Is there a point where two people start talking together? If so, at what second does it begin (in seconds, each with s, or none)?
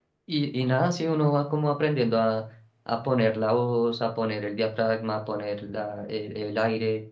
none